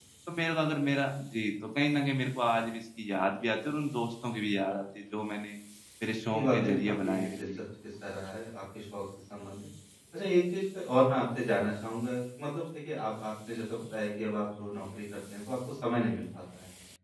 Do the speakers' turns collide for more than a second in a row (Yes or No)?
Yes